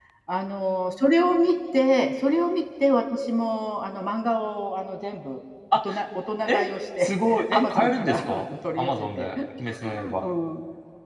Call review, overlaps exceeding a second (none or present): present